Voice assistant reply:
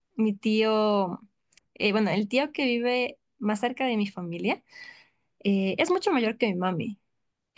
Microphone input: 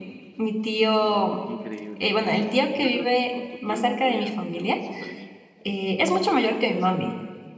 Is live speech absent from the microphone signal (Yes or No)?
No